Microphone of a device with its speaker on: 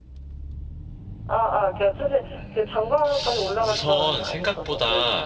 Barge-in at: 2.4 s

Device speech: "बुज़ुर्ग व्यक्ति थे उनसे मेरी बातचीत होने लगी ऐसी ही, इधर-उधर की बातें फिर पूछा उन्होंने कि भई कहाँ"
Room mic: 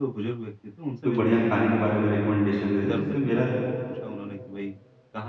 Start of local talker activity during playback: 1.0 s

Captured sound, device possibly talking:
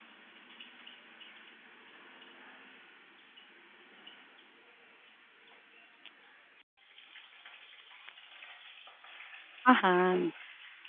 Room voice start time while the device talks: 9.7 s

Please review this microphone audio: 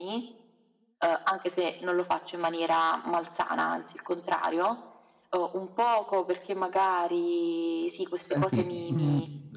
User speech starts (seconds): 8.2 s

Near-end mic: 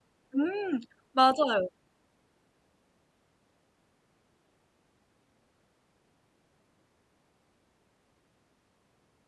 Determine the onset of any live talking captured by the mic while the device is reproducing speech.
0.3 s

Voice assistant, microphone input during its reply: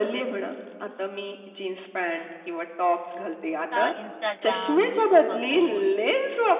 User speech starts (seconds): 3.7 s

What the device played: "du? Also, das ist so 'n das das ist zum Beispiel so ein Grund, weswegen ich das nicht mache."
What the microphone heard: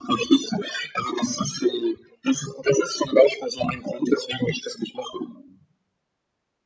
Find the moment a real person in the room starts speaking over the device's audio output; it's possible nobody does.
none

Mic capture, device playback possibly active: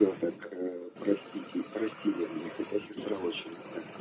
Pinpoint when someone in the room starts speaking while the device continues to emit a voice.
none

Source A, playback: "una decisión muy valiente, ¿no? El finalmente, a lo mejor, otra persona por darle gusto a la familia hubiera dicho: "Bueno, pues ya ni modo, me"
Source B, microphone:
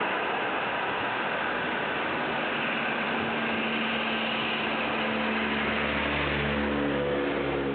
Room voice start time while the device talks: none

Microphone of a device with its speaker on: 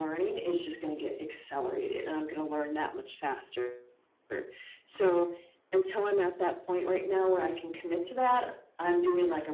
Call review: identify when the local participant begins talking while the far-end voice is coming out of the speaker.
none

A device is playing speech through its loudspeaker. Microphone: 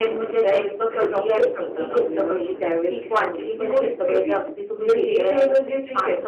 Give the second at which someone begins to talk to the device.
none

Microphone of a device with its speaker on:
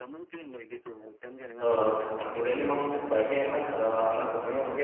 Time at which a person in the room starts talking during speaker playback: 1.6 s

